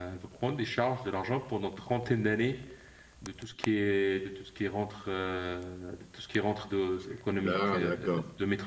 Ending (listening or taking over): listening